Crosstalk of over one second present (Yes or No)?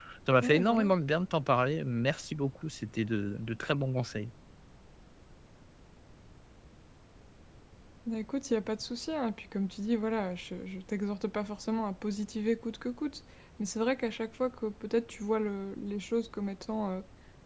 No